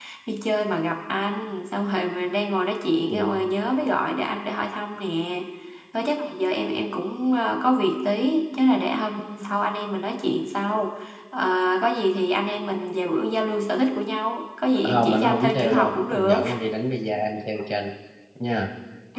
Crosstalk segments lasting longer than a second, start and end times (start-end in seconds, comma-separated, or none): 14.8-16.4